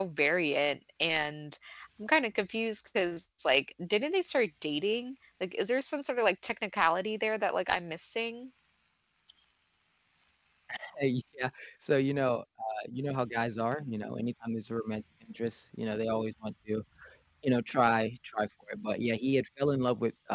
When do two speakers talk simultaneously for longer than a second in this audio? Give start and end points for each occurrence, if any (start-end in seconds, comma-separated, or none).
none